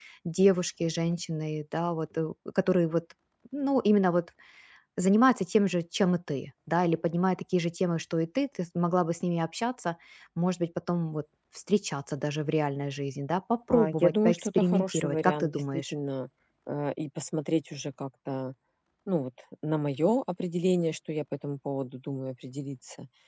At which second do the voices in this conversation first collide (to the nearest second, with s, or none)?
14 s